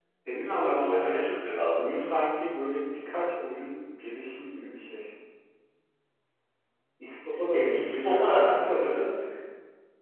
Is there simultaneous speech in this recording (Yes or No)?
Yes